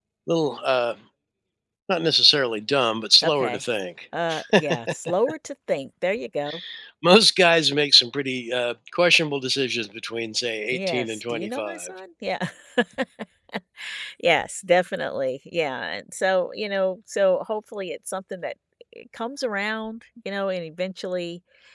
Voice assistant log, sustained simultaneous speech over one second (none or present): present